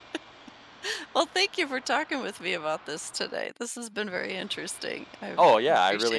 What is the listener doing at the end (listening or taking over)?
taking over